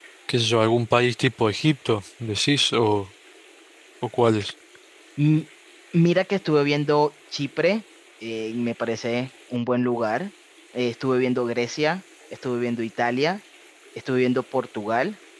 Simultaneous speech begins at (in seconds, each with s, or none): none